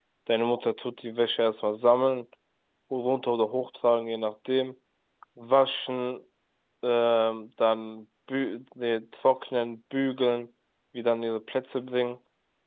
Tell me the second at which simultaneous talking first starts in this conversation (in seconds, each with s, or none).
none